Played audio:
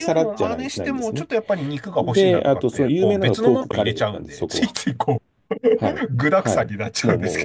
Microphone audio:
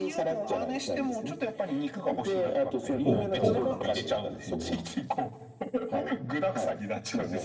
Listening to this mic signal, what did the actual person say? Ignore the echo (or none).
ポー、ポークなんですね。おー、